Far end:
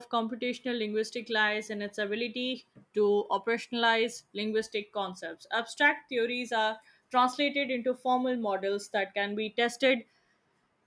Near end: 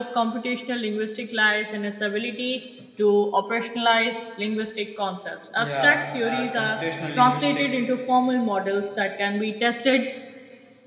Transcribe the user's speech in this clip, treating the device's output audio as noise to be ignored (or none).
Yeah, uh, computational linguistics